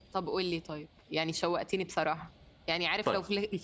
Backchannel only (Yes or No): Yes